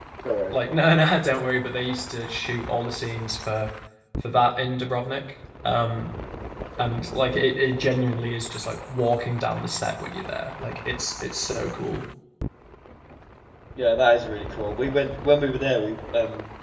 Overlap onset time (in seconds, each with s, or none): none